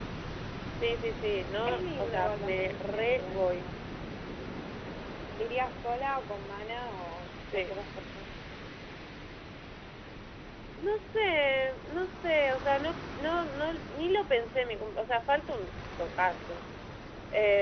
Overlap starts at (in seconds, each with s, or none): 1.6 s